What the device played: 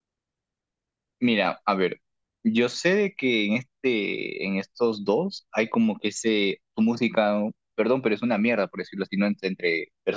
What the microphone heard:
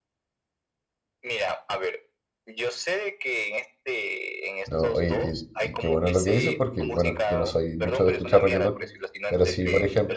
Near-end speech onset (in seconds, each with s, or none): 4.7 s